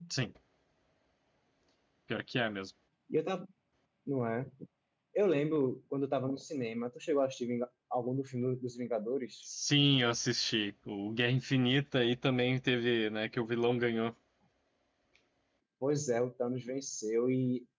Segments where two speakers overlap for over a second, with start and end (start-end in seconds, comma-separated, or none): none